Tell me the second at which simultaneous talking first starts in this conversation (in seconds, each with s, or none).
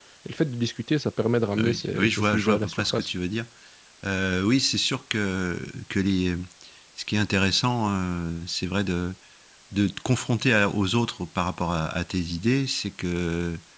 1.6 s